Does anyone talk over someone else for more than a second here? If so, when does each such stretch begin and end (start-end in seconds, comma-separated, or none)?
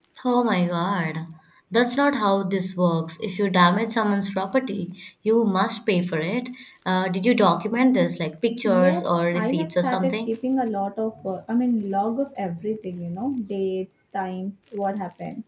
8.8-10.3